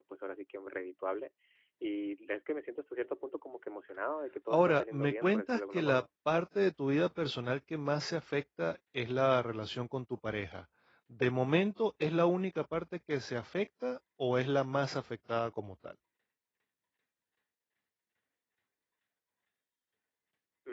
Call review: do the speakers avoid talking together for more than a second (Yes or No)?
No